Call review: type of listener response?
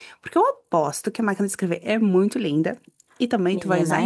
listening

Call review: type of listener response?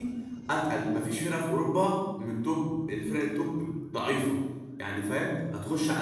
listening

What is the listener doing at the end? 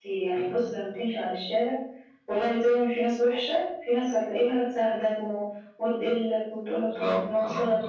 listening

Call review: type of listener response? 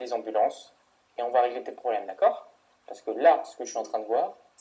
listening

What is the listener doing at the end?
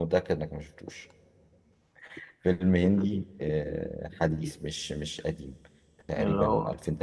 listening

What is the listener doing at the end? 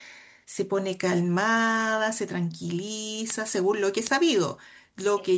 taking over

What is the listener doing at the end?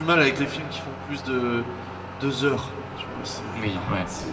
taking over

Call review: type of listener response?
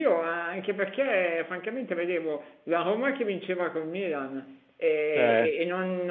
listening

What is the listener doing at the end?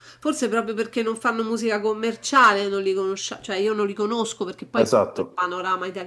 listening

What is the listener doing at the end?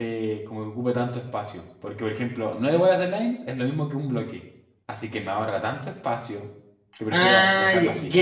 taking over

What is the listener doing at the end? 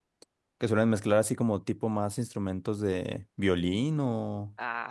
taking over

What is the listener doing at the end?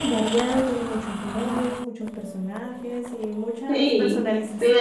taking over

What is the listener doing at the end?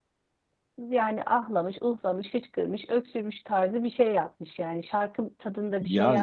taking over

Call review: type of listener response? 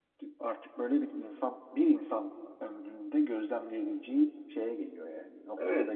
taking over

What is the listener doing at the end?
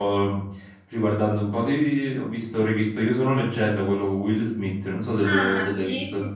taking over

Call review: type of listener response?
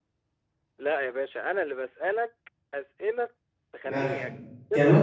taking over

